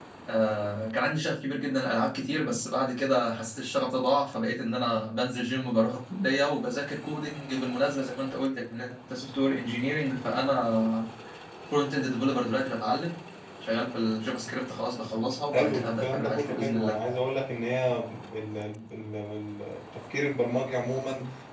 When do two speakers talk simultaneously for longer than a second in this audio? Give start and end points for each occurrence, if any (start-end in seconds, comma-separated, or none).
15.5-17.0